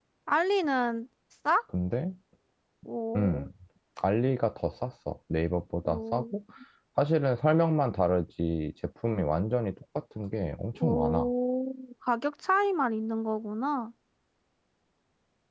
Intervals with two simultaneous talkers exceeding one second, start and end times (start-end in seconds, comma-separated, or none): none